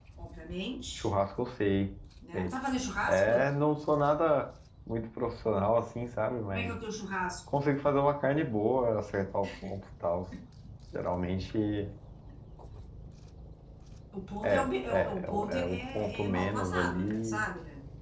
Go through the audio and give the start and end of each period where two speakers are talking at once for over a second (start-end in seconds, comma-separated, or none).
14.4-17.5